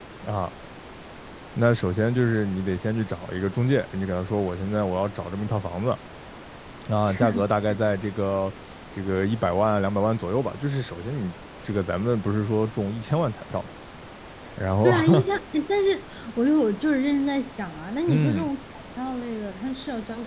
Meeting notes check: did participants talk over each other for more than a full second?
No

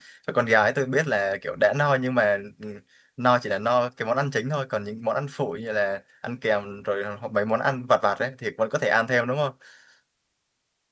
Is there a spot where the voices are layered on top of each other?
No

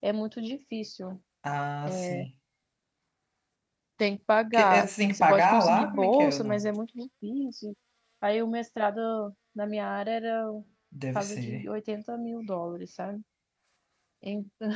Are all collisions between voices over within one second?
No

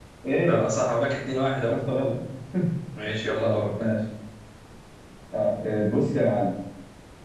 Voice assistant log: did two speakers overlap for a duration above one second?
No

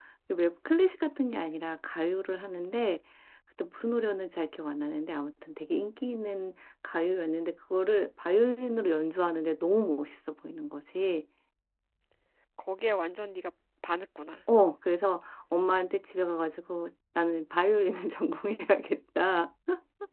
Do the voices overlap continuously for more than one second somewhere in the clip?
No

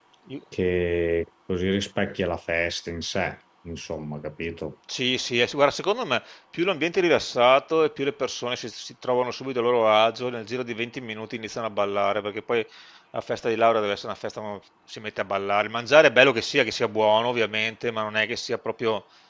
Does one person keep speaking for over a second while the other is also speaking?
No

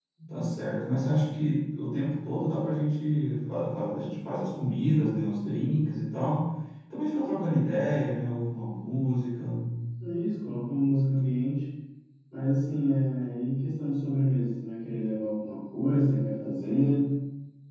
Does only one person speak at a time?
Yes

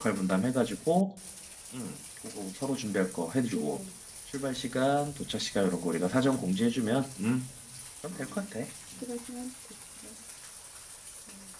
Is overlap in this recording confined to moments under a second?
Yes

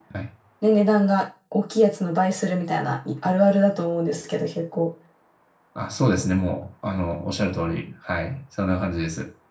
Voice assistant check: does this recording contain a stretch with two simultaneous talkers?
No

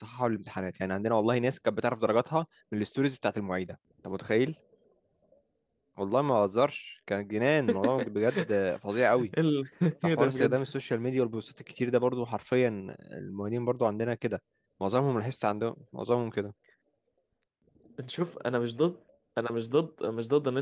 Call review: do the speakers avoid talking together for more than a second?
Yes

